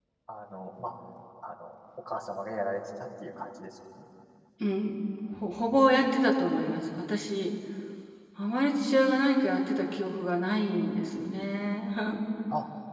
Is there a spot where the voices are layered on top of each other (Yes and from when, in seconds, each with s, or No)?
No